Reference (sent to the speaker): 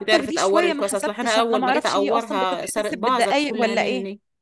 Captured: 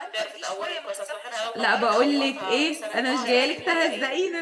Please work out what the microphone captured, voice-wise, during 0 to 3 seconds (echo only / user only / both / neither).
both